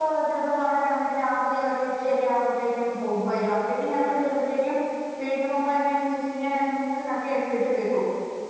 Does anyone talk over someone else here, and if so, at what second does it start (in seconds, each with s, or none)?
none